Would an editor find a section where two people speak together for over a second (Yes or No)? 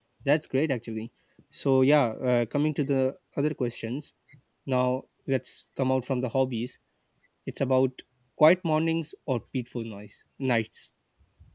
No